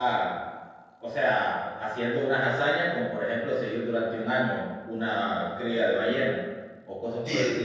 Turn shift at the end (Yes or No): Yes